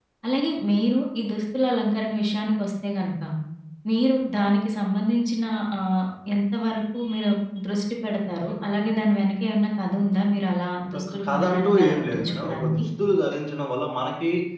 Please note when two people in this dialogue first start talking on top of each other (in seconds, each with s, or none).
10.8 s